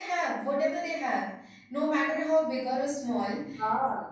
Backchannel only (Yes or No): Yes